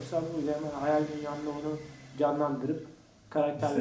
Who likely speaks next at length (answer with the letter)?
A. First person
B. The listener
B